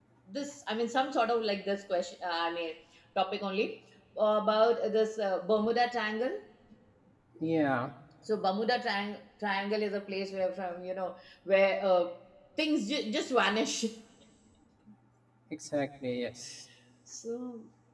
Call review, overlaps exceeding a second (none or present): none